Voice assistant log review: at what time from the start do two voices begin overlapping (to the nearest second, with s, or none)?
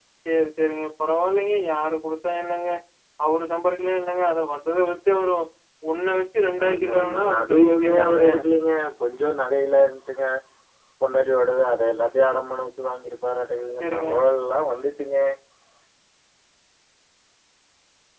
7 s